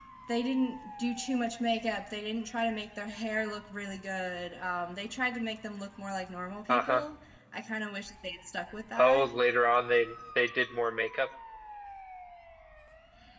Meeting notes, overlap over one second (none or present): none